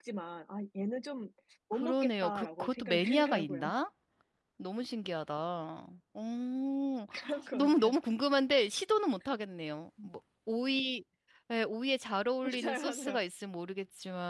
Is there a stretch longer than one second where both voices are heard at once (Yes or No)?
Yes